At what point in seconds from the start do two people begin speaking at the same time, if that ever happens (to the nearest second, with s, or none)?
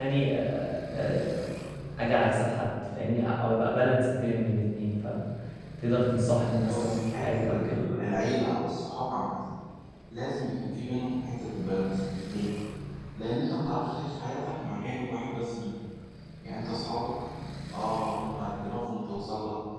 7 s